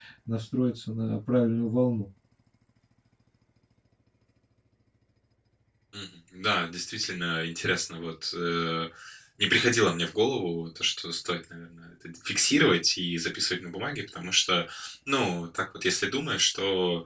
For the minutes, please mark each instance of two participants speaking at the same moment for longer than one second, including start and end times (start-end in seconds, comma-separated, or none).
none